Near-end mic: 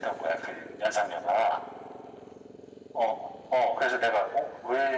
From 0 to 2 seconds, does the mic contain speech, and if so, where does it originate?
echo only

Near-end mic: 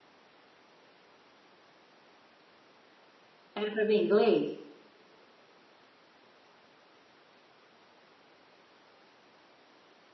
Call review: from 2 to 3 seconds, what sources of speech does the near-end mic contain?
neither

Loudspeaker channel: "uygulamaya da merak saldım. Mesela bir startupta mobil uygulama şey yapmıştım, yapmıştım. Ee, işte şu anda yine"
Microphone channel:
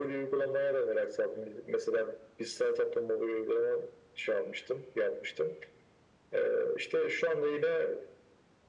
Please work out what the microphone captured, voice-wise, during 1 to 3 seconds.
echo only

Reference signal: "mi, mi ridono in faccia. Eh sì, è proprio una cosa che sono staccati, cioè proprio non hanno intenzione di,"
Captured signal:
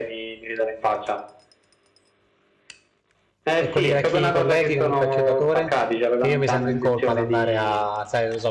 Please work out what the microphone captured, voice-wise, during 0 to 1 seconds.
echo only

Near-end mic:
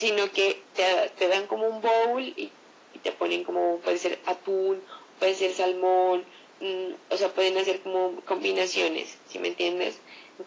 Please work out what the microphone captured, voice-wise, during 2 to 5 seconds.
echo only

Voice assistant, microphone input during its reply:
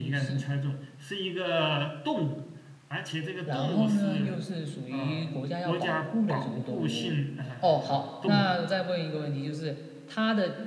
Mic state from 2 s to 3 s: user only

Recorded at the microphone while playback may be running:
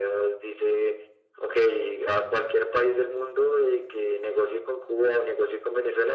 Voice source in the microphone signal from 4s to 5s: echo only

